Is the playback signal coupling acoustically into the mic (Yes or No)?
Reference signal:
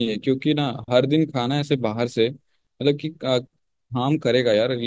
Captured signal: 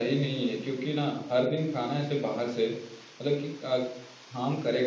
Yes